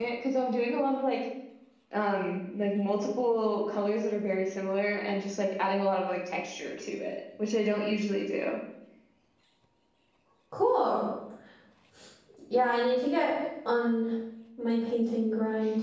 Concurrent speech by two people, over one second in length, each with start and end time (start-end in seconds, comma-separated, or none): none